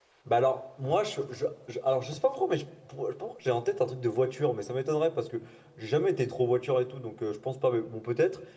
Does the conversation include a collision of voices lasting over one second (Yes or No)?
No